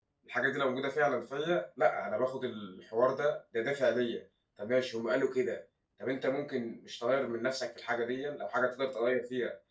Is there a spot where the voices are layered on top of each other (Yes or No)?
No